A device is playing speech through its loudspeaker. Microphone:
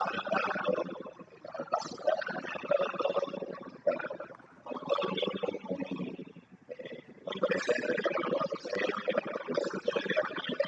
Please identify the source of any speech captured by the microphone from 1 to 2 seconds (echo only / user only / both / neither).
echo only